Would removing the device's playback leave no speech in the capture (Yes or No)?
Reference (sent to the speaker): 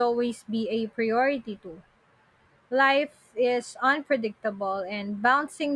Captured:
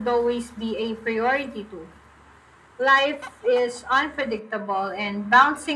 Yes